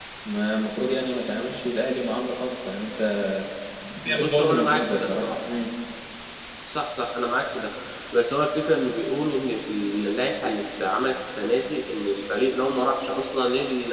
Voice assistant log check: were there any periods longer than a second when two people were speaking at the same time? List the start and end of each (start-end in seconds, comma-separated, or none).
4.1-5.3